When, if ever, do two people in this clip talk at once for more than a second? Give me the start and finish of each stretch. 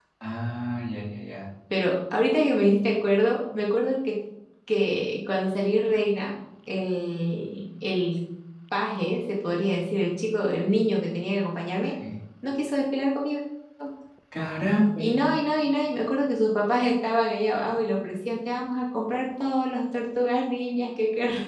none

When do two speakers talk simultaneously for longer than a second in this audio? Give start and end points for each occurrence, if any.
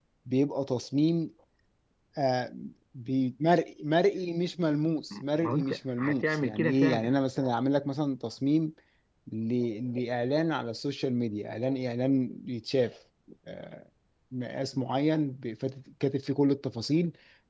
5.4-7.2

